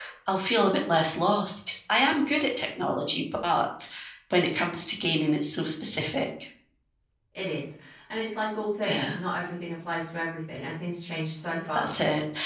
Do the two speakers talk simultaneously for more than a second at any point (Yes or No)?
No